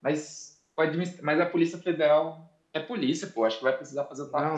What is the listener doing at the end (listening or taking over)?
taking over